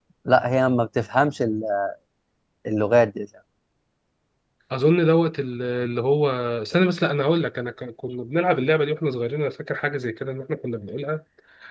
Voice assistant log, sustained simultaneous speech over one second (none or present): none